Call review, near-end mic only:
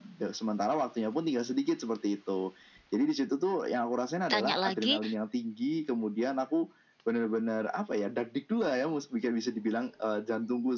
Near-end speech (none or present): present